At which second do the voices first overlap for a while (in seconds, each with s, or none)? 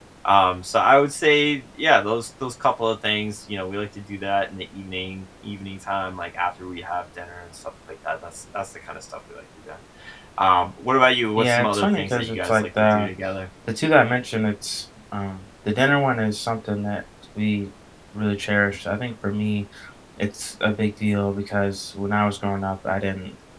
11.4 s